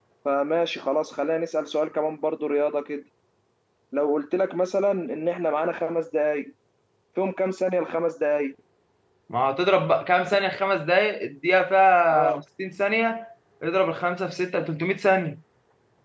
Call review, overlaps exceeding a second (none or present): none